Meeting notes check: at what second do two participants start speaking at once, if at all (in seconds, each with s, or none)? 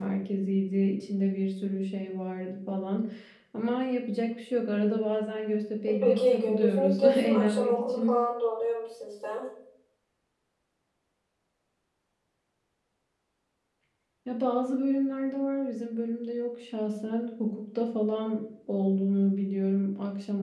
5.9 s